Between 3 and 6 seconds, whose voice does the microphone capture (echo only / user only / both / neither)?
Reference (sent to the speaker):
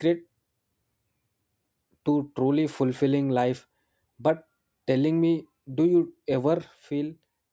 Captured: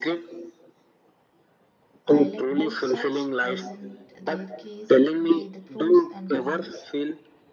both